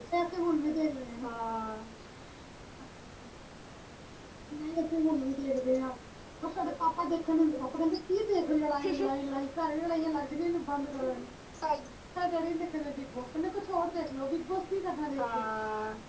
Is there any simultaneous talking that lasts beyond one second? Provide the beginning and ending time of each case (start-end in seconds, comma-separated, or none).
none